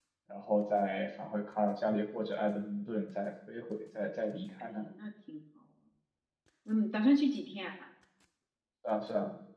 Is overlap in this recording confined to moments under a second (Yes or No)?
Yes